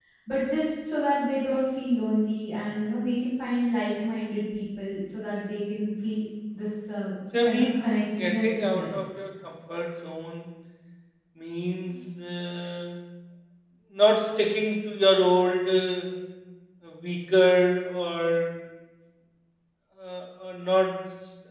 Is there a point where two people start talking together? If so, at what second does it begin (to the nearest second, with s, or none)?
7 s